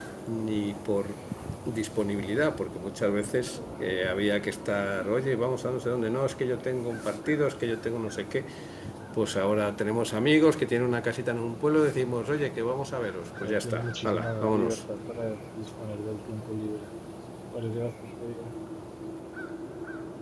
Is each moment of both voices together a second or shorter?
No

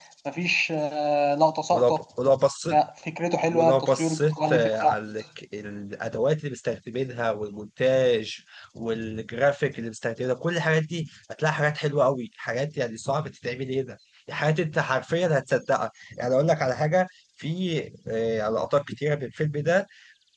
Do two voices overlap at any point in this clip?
Yes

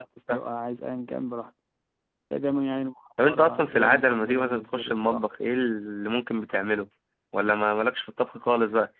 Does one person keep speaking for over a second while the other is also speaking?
Yes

